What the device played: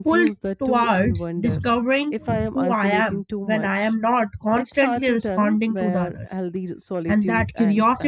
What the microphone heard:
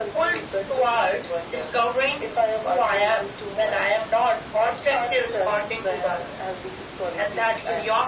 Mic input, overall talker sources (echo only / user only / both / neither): echo only